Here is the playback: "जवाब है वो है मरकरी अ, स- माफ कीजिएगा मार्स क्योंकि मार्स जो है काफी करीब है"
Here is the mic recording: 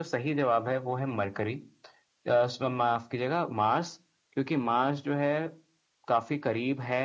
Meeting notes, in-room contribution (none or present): none